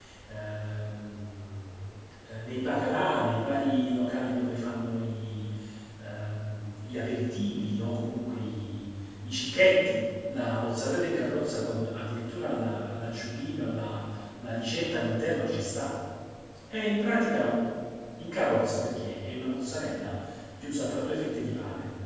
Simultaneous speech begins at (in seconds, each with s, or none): none